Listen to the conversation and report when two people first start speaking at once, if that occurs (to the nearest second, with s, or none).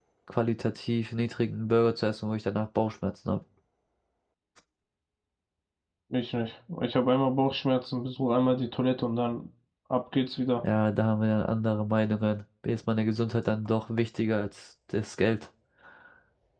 none